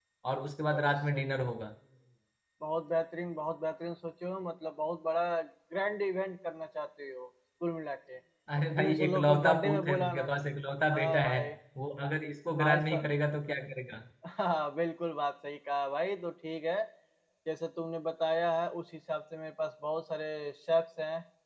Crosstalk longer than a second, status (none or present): present